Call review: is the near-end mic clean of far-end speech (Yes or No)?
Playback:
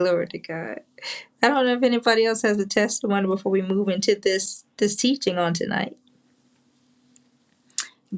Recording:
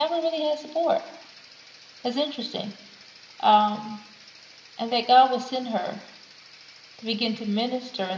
Yes